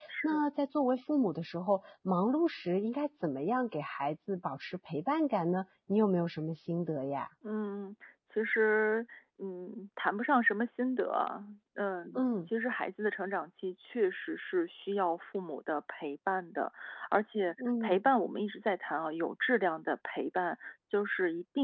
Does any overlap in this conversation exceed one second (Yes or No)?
No